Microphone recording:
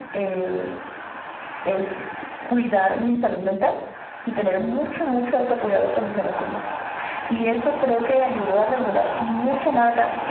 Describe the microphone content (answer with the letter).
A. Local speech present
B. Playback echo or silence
B